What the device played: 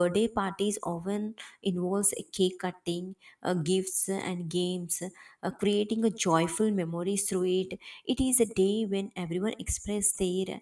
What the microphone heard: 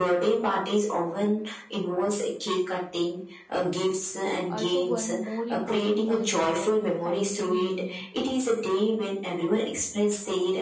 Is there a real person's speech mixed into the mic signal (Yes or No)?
Yes